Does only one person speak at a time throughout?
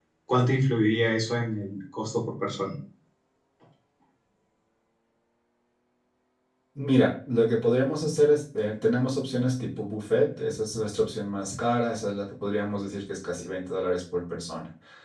Yes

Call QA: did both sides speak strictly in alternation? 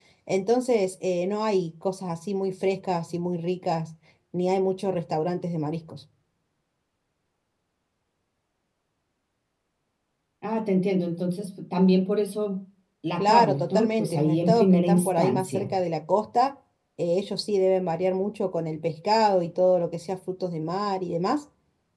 No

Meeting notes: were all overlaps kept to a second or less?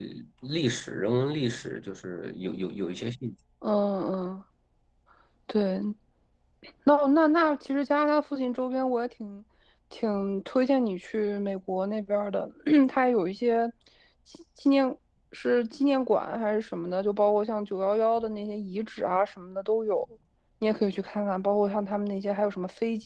Yes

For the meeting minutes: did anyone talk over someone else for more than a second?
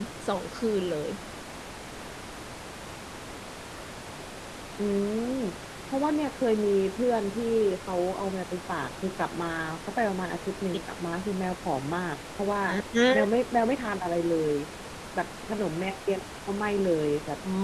No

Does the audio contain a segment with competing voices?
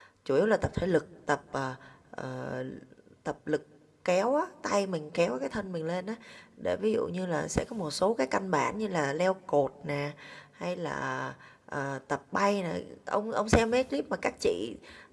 No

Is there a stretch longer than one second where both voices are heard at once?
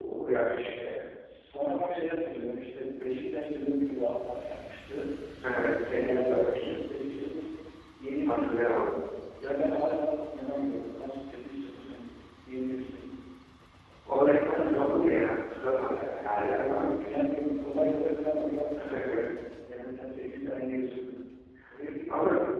Yes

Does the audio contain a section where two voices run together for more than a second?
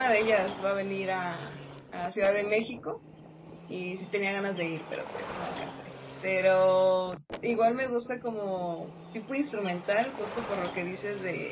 No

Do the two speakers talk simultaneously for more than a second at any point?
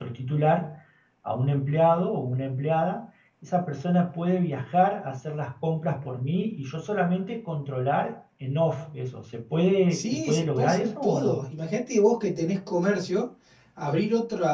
Yes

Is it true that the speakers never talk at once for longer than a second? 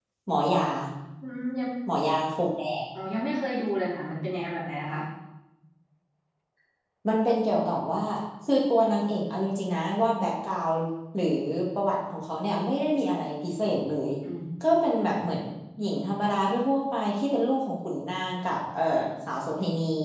Yes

